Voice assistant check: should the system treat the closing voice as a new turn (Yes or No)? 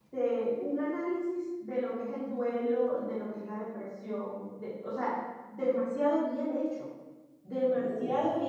No